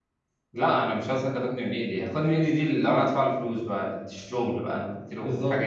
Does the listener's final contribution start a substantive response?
Yes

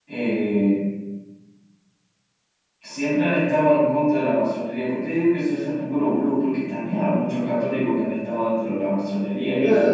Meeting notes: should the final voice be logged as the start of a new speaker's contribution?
Yes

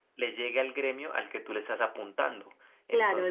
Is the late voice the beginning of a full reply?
Yes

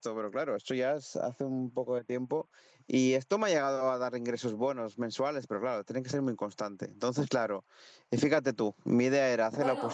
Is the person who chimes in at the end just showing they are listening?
No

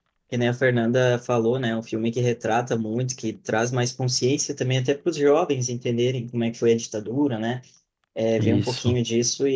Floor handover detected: No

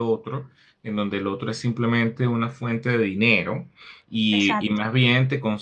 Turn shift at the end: No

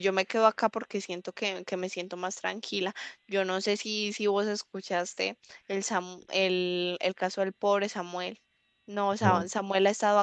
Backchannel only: Yes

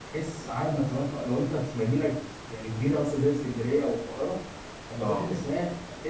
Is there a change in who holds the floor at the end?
No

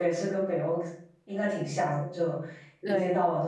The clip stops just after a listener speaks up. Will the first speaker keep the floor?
Yes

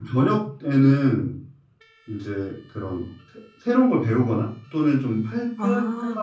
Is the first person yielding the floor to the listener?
No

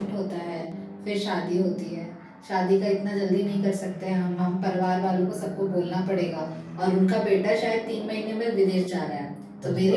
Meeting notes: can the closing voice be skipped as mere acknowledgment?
Yes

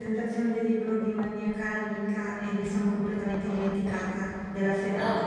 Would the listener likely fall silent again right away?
Yes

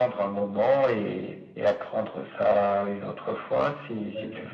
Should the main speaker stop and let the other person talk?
Yes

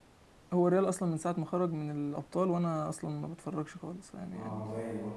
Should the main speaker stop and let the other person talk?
Yes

